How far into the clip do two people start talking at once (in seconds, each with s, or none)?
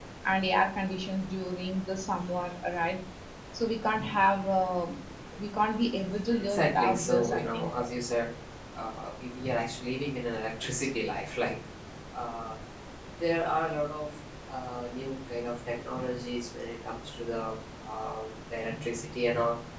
6.4 s